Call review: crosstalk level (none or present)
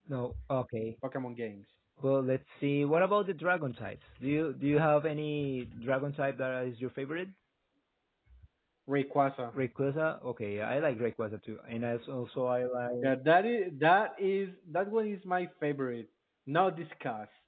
none